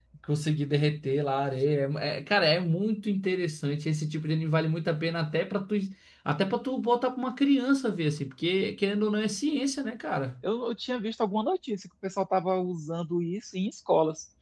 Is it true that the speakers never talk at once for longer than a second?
Yes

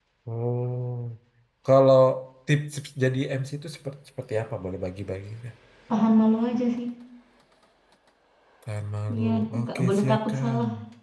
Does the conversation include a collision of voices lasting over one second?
Yes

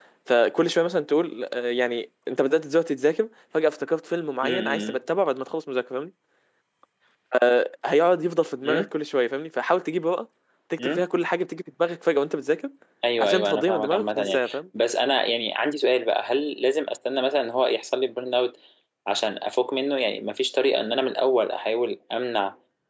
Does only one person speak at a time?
No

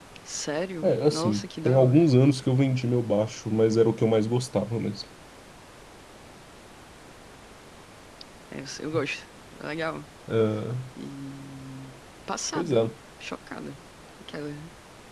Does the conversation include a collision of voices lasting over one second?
Yes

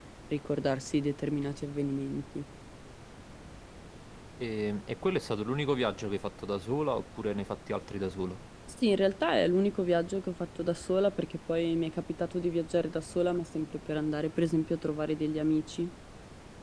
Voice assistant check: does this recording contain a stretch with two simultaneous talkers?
No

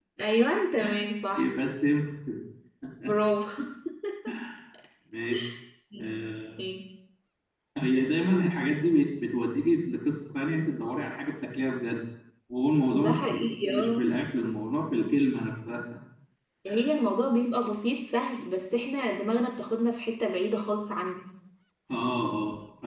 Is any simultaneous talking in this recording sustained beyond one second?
Yes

